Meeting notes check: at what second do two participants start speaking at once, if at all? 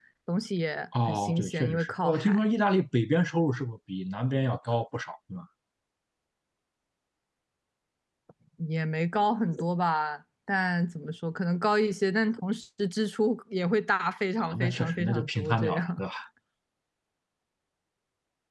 1 s

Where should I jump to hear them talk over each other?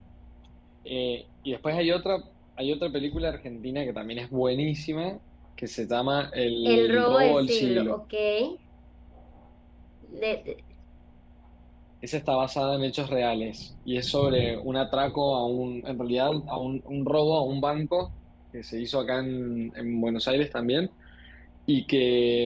7 s

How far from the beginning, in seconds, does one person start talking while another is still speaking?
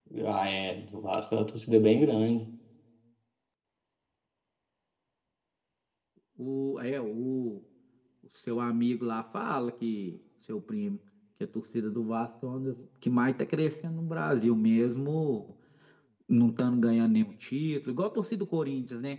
none

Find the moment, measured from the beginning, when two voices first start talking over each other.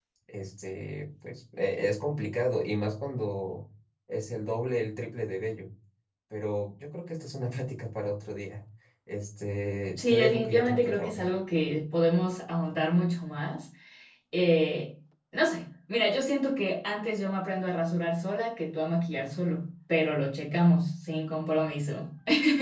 10 s

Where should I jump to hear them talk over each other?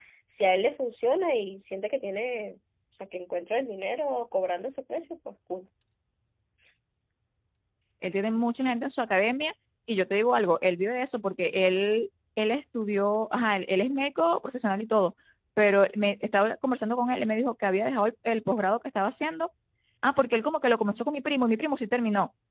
none

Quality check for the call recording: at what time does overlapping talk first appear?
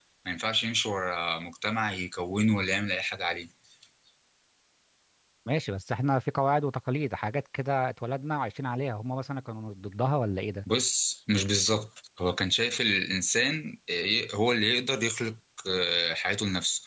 none

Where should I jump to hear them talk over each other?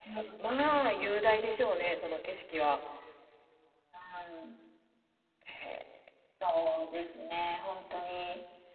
none

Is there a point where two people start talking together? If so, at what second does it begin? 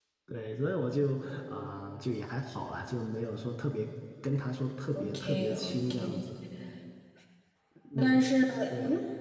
5 s

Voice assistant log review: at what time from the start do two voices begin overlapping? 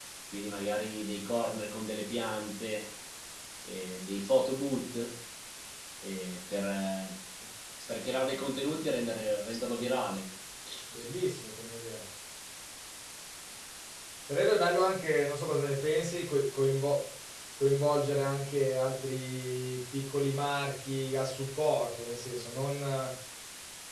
none

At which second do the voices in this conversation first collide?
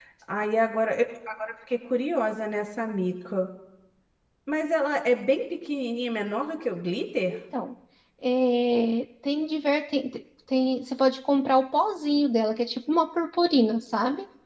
none

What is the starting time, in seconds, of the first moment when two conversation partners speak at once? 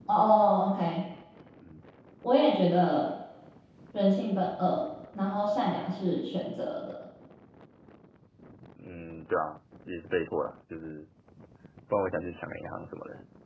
none

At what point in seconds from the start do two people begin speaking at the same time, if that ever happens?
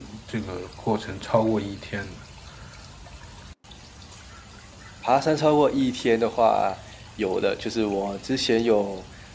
none

